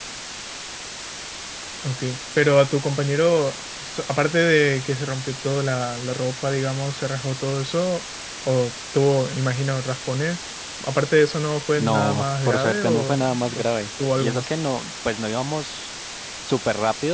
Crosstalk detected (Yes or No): Yes